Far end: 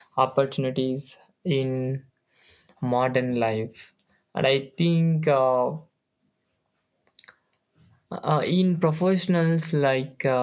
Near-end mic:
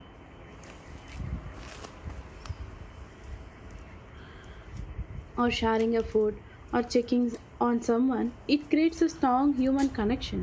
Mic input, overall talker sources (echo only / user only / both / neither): user only